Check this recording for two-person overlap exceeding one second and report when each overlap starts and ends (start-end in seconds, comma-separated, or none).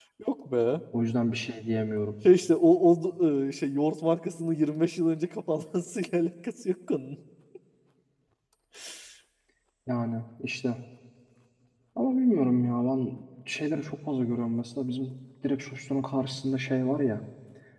none